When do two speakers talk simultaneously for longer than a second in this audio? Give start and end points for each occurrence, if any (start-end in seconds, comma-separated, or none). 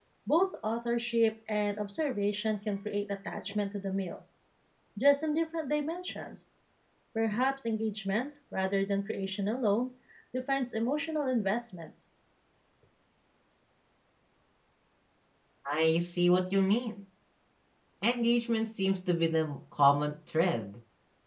none